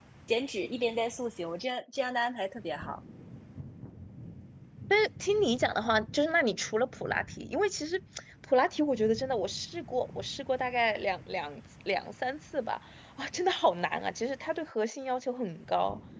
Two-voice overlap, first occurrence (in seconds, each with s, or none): none